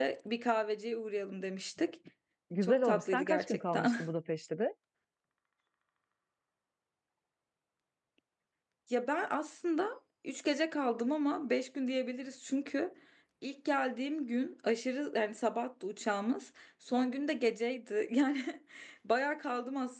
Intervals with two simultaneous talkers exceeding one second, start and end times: 2.6-4.0

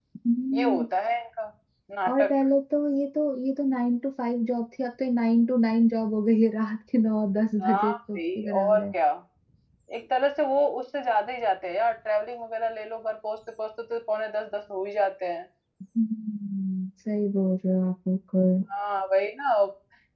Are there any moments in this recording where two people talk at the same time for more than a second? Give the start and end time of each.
7.6-8.8

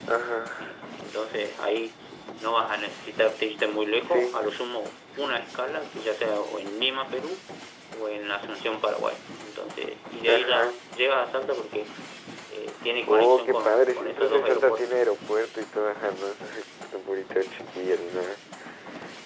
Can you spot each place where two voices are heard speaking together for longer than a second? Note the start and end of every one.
13.1-14.9

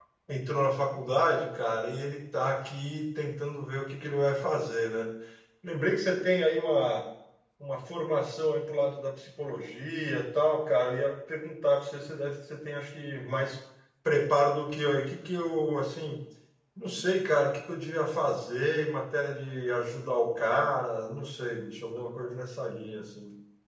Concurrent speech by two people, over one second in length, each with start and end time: none

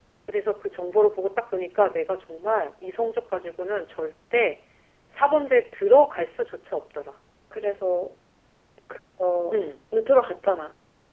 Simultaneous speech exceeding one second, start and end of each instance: none

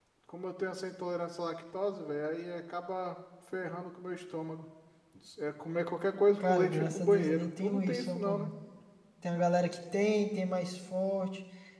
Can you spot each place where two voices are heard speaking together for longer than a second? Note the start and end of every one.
6.4-8.5

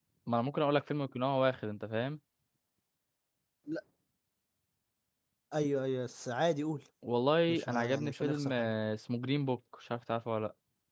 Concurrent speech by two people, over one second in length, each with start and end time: 7.5-8.7

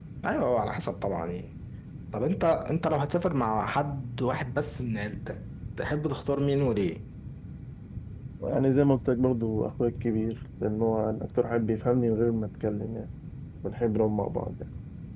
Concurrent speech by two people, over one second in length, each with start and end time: none

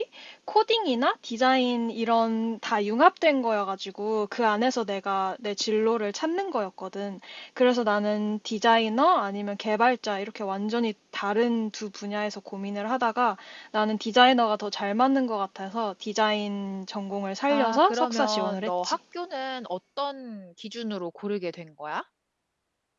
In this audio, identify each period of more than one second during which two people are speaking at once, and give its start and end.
17.5-19.0

